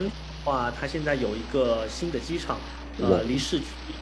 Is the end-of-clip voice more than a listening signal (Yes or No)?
No